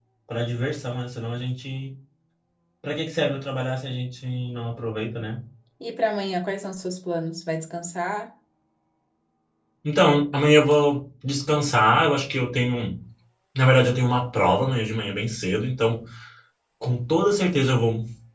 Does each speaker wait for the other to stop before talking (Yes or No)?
Yes